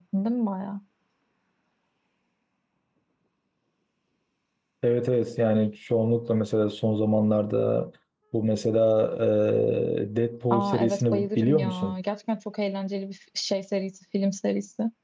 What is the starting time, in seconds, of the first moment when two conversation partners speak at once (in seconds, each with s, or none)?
10.5 s